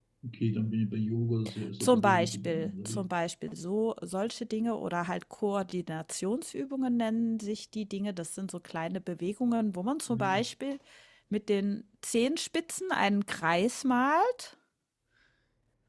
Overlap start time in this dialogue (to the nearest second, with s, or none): 2 s